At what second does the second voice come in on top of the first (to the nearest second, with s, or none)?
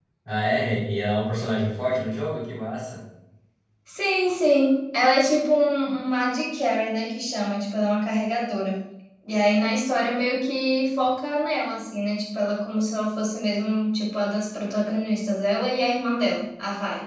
none